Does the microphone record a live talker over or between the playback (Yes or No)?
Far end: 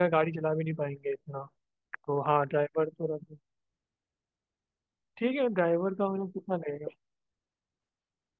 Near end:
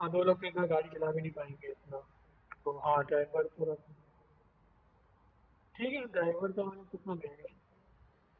No